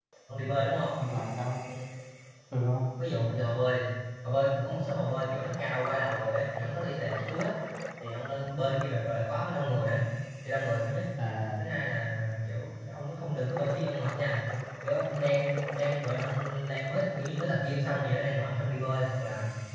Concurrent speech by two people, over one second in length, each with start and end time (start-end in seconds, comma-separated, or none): none